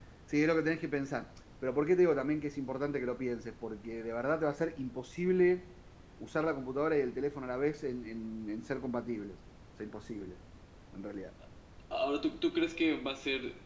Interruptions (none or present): none